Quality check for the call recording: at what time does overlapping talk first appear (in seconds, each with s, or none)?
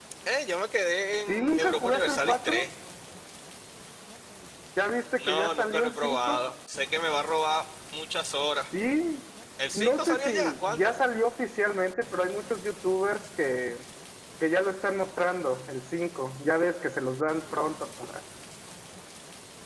1.3 s